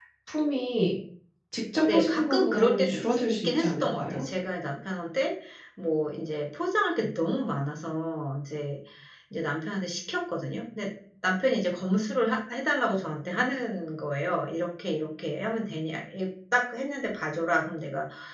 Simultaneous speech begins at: 1.9 s

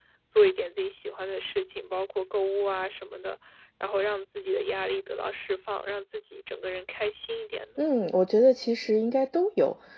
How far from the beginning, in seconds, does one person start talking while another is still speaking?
none

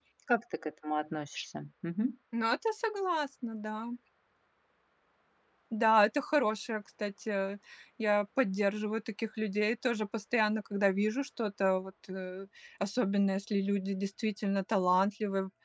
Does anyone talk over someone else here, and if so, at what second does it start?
none

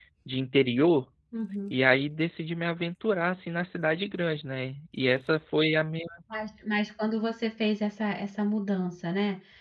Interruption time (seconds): none

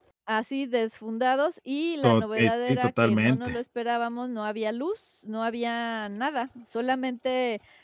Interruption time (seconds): 2.0 s

